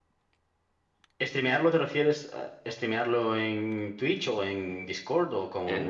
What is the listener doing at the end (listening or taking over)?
taking over